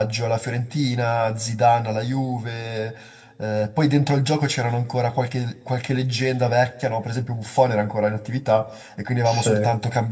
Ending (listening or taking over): listening